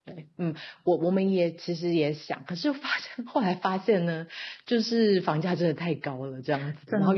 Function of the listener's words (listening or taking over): listening